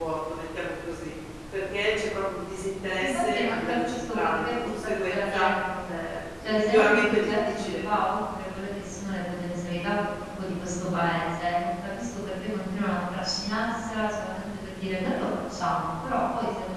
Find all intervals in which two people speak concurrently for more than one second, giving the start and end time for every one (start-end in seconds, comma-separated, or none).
3.0-5.5, 6.4-7.8